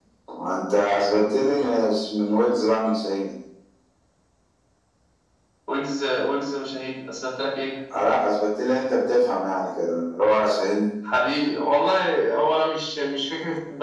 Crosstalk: none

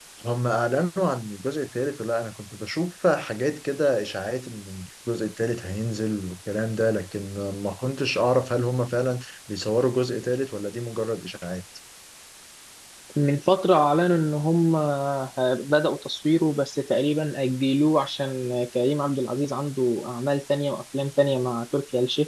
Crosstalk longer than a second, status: none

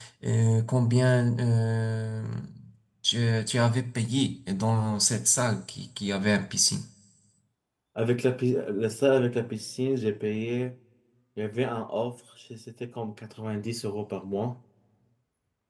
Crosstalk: none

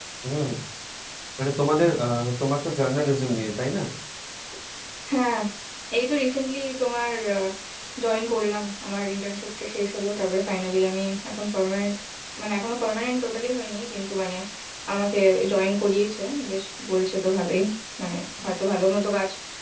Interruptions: none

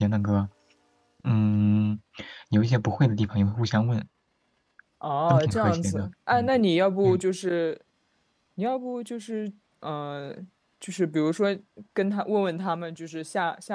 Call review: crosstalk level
present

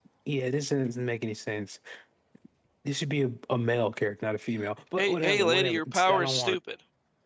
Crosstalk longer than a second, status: present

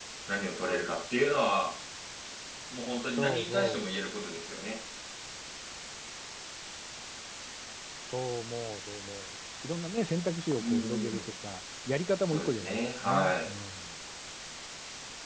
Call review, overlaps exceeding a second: present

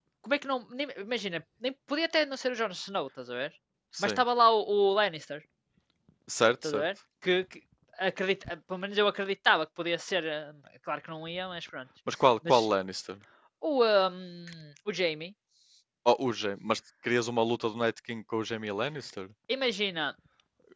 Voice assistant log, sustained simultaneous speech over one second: none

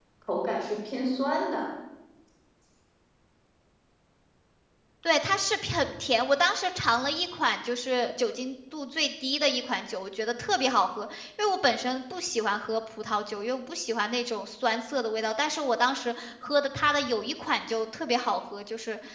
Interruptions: none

